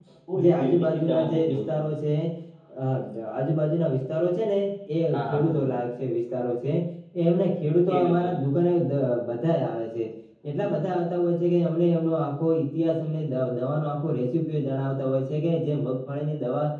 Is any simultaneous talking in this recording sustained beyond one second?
Yes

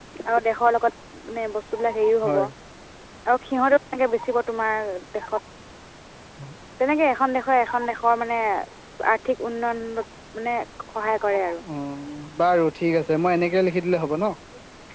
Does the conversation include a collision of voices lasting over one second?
No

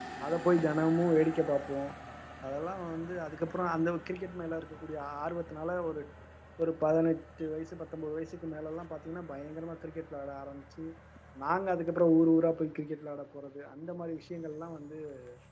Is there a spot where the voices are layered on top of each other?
No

